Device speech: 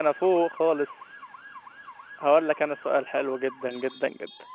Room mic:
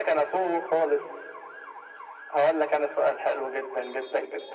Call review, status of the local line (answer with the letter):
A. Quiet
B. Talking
A